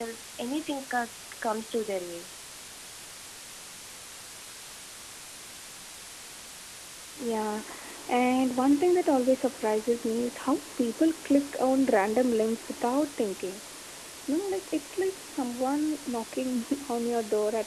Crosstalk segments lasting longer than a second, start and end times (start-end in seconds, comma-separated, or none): none